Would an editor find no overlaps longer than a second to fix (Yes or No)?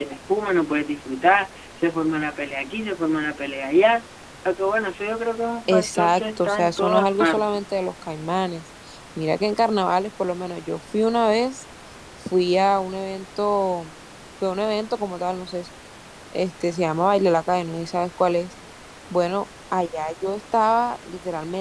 No